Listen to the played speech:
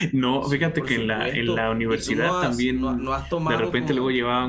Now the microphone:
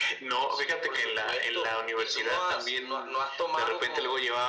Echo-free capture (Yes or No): No